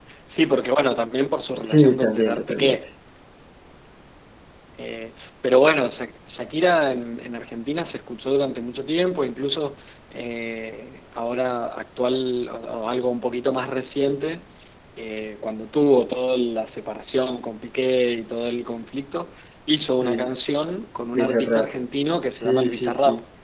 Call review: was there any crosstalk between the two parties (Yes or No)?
Yes